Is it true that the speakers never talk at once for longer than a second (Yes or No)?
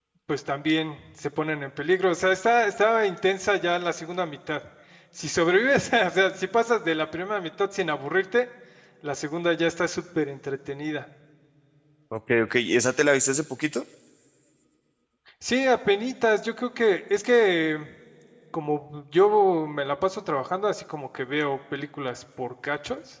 Yes